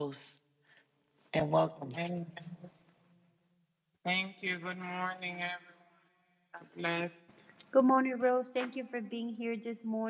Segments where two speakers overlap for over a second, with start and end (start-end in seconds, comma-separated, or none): none